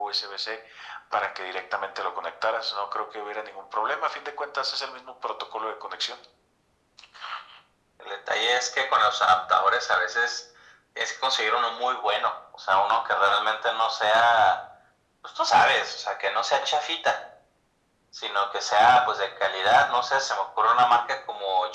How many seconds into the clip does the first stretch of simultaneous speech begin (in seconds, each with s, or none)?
none